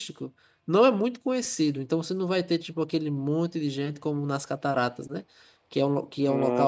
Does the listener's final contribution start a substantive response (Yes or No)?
No